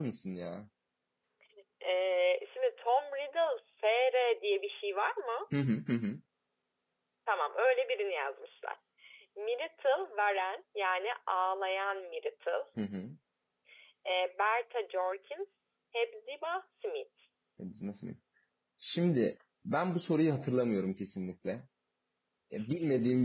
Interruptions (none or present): none